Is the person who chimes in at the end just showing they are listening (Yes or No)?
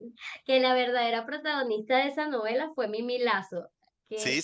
No